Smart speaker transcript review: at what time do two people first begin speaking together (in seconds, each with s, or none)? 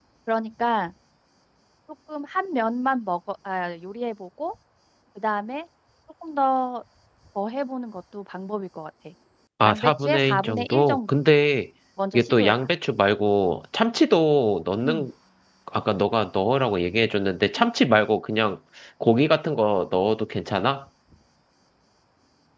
9.6 s